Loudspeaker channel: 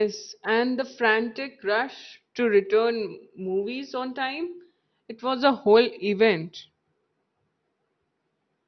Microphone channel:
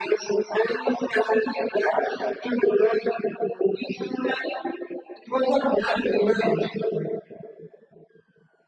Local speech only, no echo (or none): none